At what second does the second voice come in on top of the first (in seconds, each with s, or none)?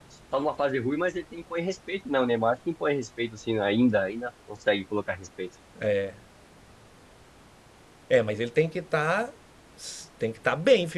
none